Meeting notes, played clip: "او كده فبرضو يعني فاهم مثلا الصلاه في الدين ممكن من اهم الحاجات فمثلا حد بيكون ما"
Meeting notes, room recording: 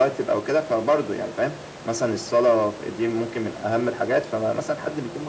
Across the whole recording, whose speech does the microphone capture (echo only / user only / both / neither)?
echo only